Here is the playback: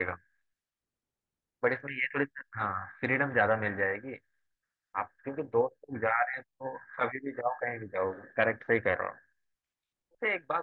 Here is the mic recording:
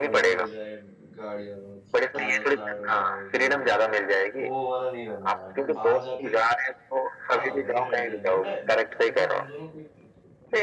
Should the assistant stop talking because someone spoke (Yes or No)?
Yes